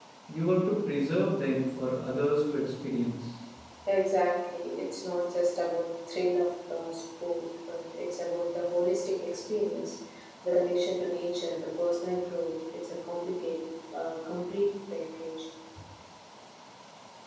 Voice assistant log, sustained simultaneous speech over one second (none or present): none